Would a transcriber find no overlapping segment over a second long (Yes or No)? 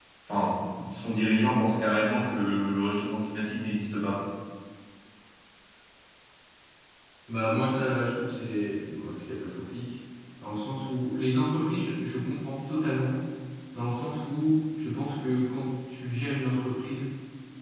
Yes